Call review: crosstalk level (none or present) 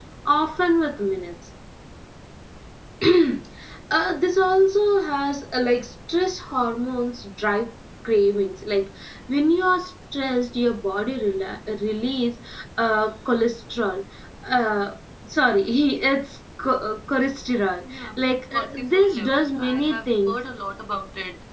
present